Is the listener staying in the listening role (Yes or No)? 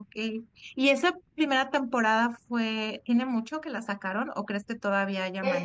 No